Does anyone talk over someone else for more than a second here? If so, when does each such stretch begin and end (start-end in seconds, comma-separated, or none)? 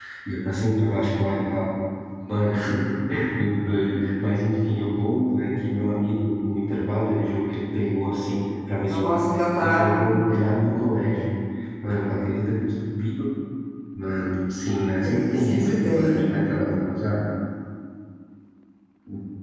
8.8-10.2, 15.0-16.2